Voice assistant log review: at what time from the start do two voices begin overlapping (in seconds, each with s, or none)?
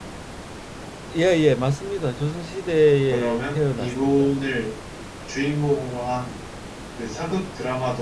3.1 s